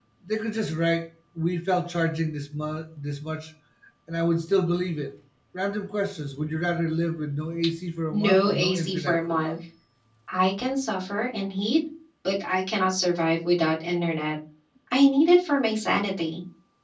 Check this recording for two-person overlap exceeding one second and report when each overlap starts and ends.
8.1-9.6

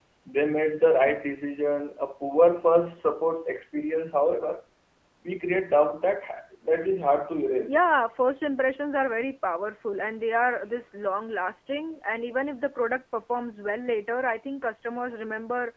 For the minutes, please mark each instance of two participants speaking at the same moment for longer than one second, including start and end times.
none

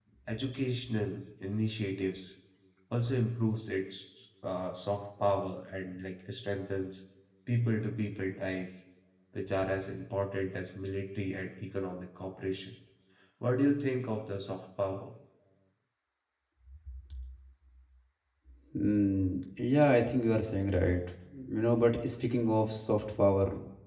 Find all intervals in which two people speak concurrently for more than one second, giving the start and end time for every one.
none

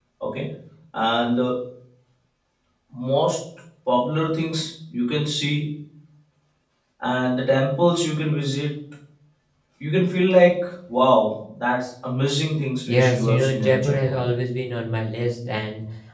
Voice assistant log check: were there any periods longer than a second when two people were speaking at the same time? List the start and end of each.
12.9-14.2

